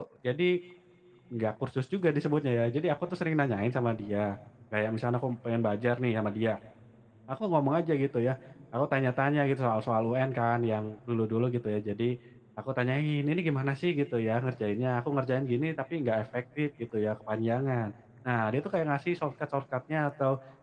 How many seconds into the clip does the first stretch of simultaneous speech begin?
none

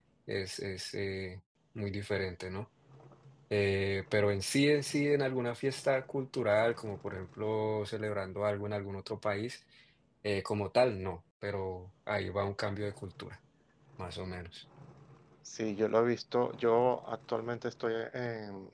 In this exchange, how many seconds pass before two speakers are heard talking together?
none

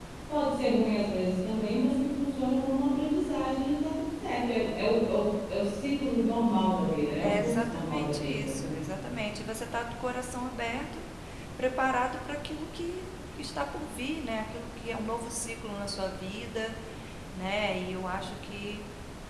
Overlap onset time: 7.2 s

